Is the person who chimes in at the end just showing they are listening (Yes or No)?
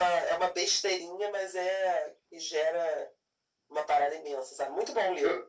No